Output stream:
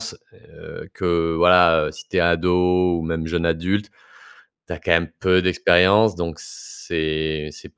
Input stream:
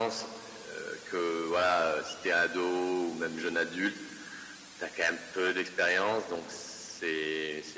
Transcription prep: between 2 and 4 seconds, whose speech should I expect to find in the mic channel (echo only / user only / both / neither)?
echo only